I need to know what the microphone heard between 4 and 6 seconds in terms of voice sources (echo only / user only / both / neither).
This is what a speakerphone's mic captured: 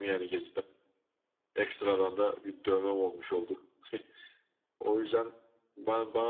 echo only